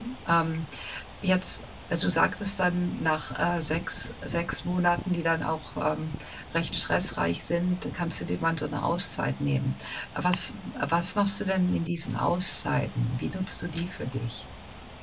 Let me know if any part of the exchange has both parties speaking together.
No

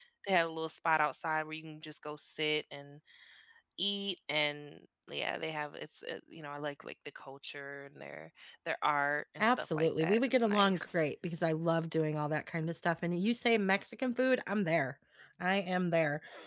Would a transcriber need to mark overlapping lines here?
Yes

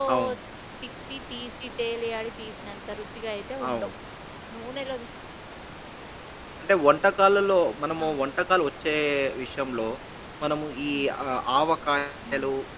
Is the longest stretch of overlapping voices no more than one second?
Yes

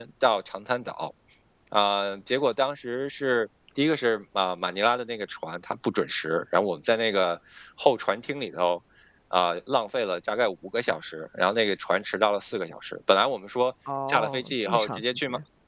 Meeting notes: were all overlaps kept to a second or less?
No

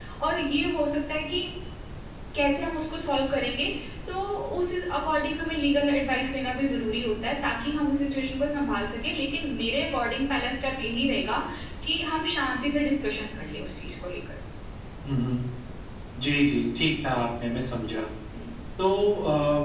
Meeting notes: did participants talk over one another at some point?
No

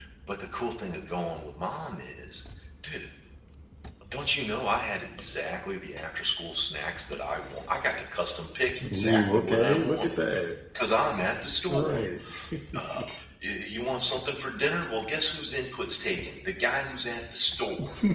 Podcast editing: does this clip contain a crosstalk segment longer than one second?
Yes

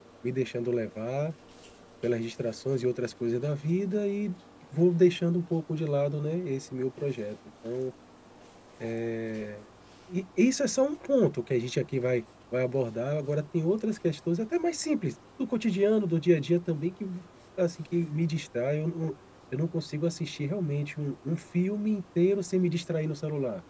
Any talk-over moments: No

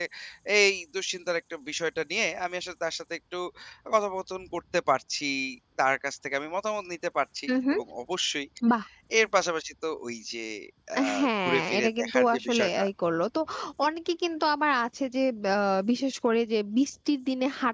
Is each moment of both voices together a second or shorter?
No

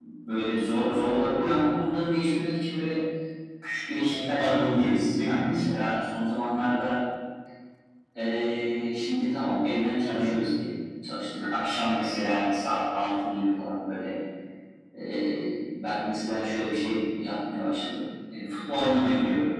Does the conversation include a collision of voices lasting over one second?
Yes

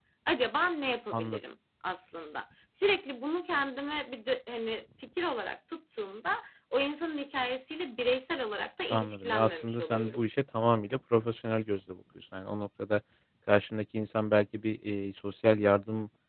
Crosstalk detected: Yes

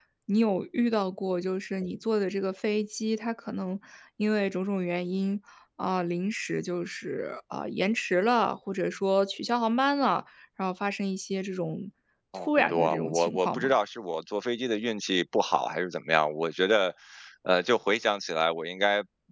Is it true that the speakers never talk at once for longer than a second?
No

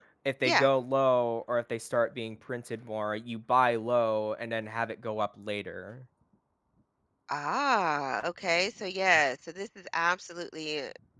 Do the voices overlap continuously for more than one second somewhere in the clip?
No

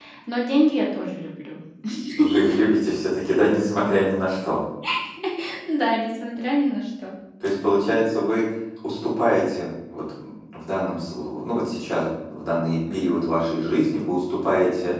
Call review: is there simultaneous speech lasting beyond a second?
No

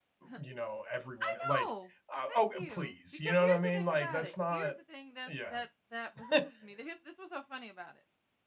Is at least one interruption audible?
Yes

